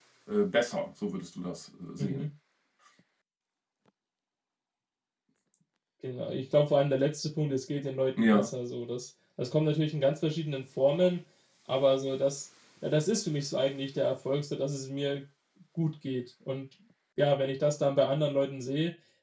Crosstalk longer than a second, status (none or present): none